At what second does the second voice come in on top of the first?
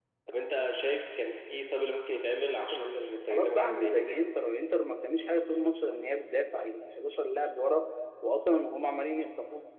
2.7 s

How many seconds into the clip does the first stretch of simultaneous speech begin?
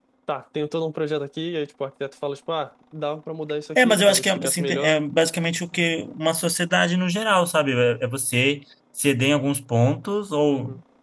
3.8 s

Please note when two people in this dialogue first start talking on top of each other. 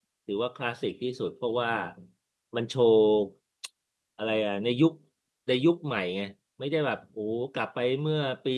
none

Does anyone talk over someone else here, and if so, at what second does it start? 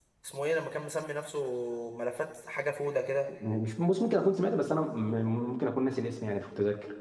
none

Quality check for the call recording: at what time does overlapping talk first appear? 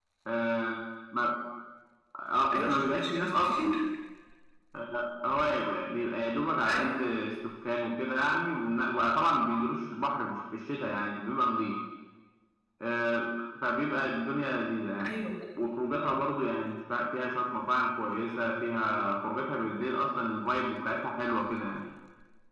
2.5 s

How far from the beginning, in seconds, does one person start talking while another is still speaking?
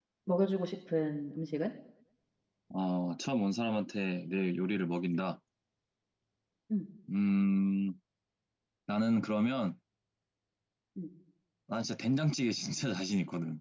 none

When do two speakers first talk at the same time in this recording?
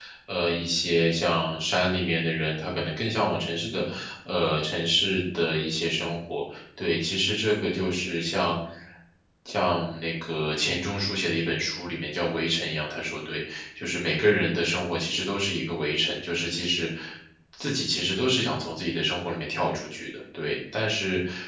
none

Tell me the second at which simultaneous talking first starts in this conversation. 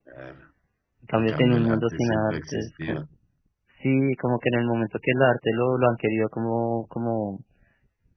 1.1 s

